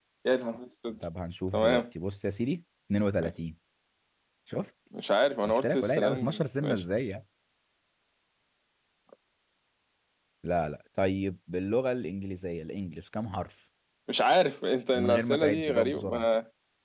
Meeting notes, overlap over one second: present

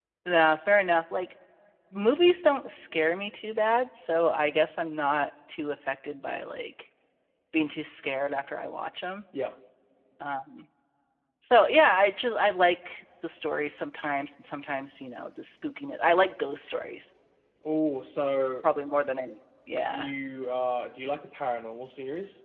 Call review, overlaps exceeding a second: none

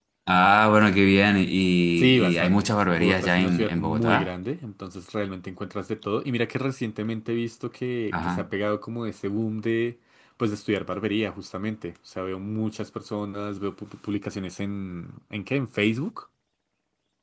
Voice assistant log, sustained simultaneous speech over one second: present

